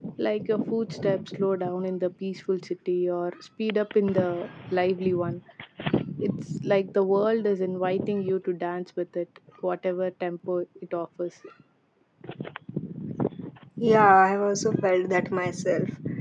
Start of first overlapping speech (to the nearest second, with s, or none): none